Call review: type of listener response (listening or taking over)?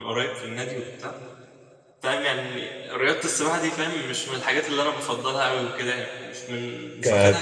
listening